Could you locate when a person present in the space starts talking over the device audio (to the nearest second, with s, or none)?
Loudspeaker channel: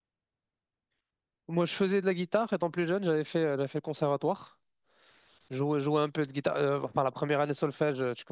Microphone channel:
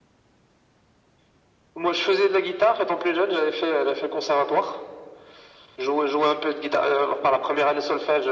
none